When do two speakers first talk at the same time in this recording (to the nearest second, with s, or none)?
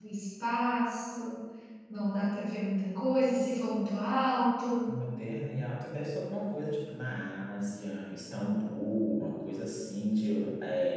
none